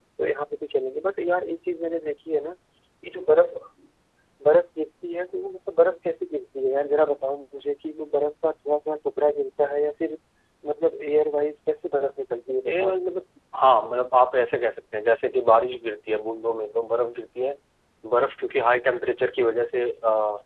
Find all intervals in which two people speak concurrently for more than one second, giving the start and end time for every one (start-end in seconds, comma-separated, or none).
none